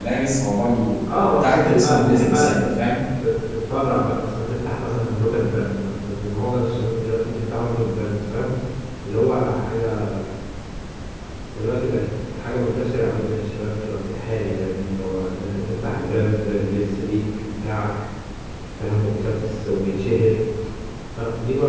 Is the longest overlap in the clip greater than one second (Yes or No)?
Yes